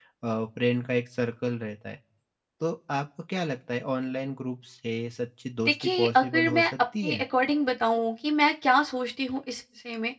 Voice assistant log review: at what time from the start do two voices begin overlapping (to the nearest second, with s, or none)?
6 s